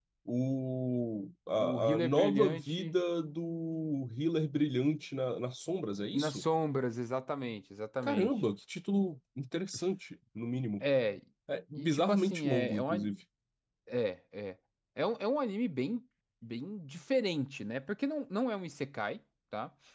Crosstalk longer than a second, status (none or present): present